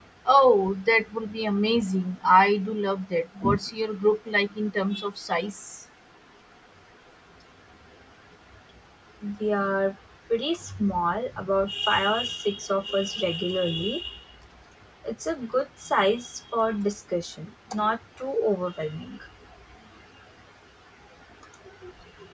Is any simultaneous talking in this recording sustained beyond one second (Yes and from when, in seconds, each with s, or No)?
No